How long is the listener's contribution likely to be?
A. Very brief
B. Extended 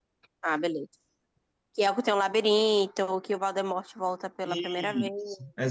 B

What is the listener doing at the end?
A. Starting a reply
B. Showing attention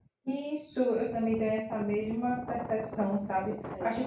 B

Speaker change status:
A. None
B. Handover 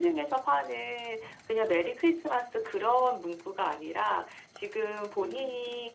A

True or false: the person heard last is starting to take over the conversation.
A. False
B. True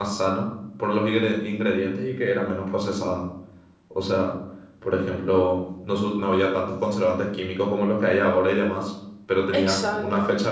A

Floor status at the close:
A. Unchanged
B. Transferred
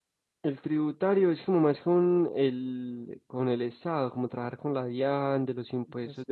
A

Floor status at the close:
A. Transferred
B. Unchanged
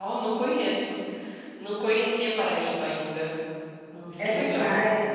A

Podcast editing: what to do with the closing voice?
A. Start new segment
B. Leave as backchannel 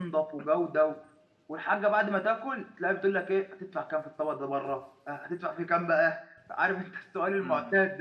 A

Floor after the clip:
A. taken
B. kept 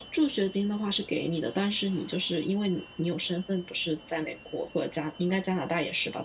B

